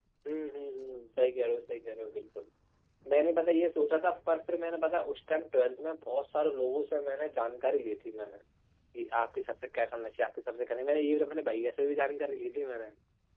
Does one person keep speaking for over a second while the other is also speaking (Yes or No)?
No